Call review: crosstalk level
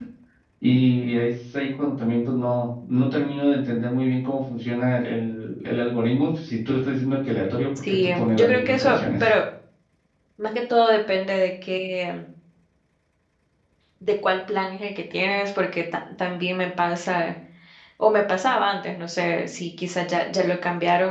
present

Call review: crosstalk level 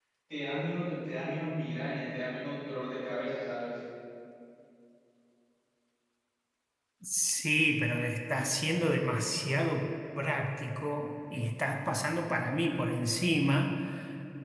none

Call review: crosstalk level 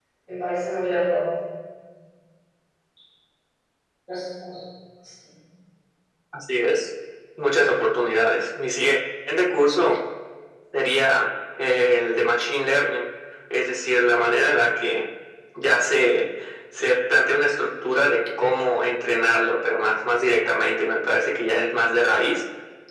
none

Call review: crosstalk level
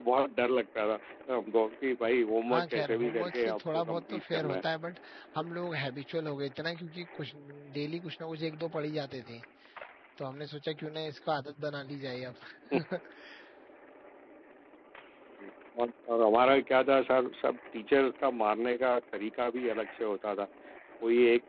present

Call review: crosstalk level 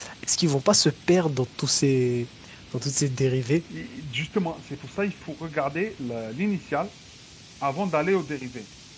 none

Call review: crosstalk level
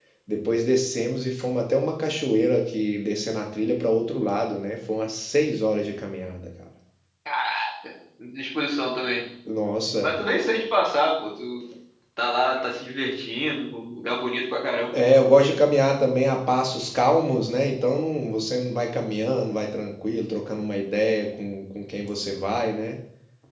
none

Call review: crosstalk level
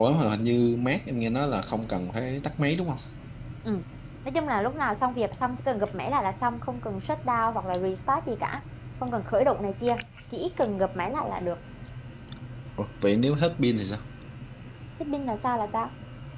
none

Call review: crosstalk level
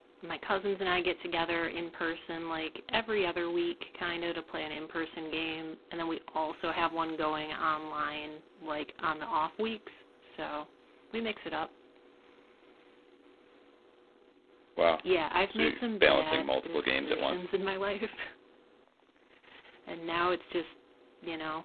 present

